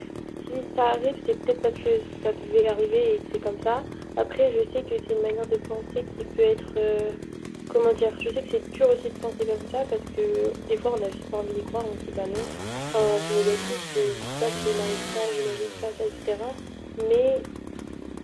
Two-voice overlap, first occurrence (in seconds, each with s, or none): none